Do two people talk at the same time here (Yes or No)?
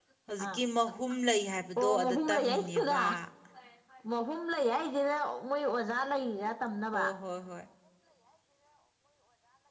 Yes